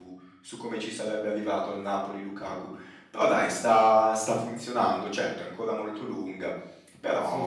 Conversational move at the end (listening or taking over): listening